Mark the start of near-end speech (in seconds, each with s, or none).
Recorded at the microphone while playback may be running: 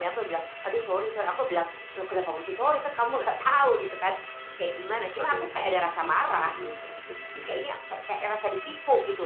5.2 s